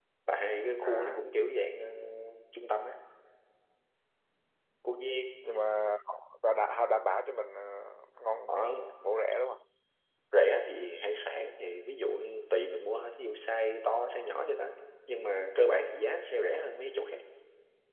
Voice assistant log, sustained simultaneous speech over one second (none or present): none